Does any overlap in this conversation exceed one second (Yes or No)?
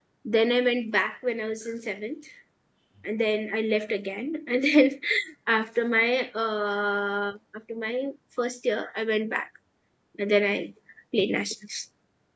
No